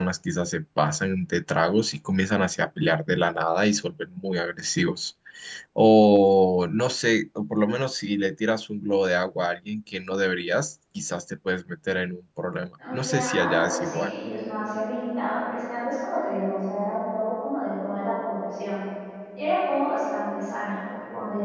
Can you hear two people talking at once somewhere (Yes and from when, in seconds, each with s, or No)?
Yes, from 12.8 s